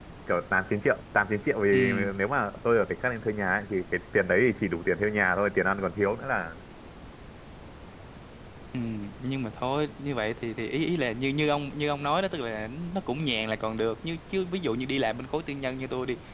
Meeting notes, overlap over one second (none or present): none